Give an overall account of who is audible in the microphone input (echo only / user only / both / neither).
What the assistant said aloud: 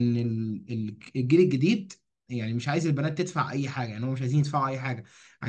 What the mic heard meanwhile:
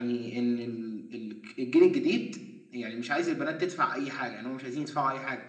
echo only